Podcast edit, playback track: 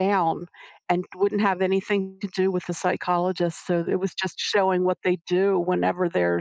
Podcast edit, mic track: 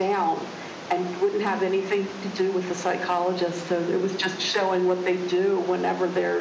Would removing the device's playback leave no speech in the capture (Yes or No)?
Yes